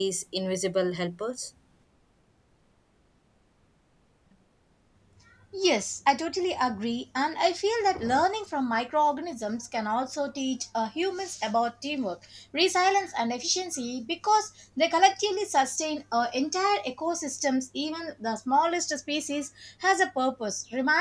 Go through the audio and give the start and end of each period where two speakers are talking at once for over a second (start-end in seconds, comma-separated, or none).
none